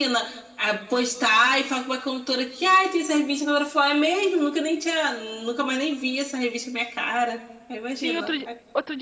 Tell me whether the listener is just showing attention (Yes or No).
No